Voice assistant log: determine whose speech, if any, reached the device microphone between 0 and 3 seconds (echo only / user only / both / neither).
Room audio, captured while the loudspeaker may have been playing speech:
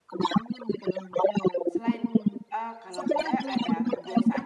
both